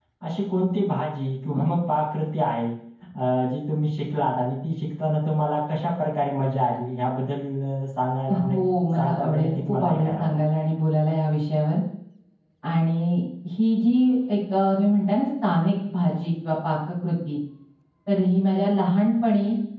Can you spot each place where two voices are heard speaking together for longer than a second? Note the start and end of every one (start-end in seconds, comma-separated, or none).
8.9-10.4